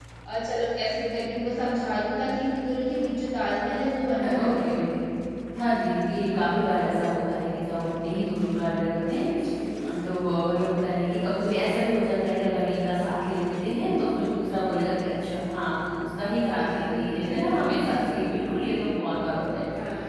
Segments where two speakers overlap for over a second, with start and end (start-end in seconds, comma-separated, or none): none